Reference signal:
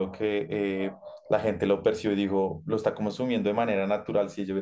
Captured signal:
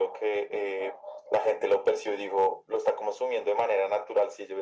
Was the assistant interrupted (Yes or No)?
No